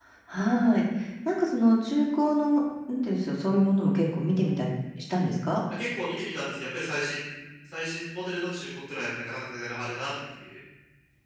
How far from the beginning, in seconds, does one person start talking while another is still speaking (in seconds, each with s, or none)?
none